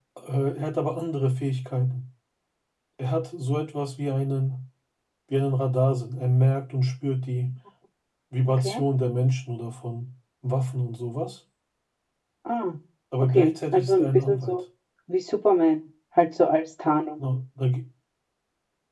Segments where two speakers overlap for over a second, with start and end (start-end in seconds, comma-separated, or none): 13.2-14.6